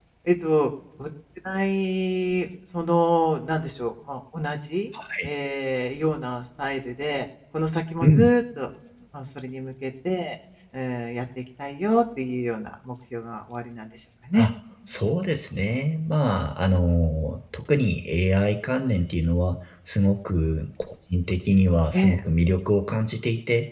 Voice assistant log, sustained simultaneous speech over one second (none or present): none